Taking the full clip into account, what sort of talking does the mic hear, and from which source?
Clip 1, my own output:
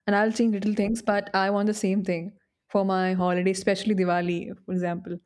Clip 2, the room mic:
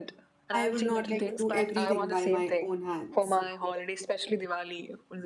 both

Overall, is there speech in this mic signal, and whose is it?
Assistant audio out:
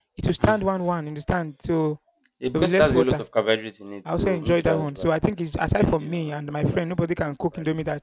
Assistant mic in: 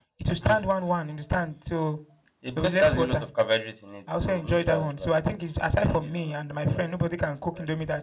echo only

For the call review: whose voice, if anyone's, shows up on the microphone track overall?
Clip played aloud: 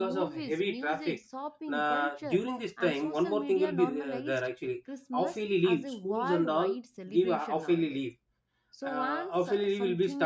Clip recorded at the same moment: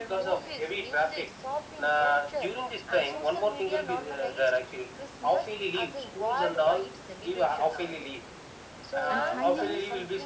both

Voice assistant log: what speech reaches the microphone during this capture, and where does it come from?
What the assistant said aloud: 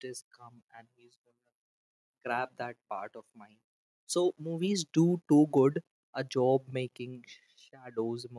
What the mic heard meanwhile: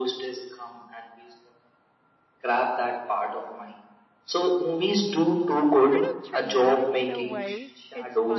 both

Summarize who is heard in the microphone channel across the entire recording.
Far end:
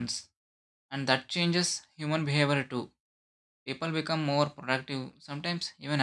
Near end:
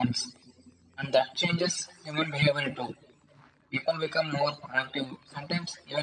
echo only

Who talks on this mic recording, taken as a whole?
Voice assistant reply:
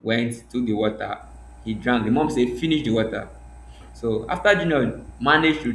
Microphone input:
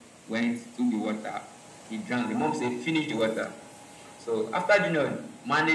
echo only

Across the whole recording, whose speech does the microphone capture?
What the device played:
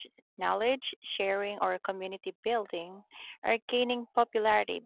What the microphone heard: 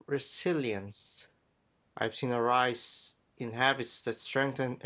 user only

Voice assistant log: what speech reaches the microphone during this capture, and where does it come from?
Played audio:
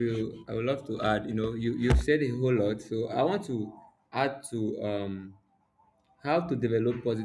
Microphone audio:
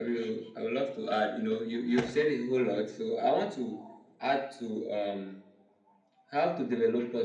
echo only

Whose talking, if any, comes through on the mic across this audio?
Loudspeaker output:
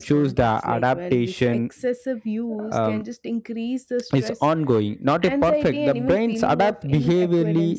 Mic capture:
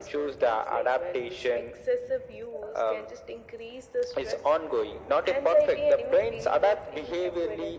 echo only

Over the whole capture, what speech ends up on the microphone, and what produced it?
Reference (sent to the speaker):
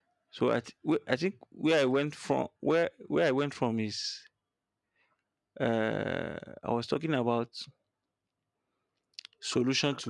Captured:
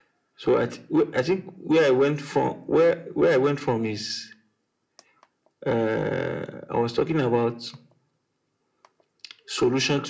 echo only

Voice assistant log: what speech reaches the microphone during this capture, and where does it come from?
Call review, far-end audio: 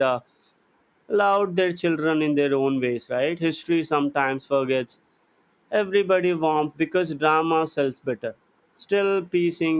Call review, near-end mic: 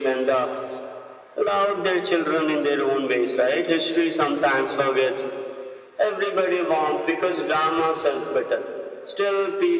echo only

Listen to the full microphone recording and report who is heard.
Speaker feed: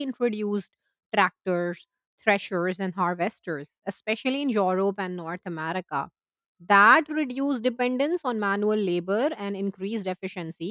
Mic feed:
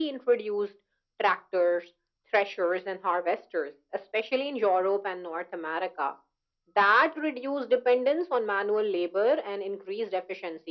echo only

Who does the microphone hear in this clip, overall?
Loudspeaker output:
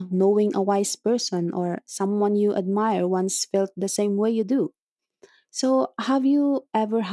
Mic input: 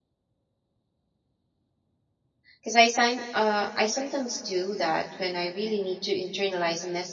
user only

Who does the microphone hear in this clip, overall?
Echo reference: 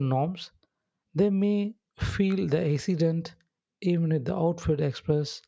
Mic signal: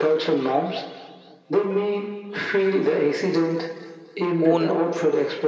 both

